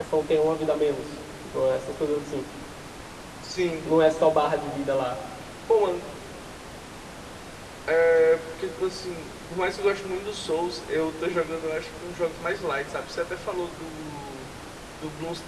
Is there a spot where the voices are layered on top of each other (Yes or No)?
No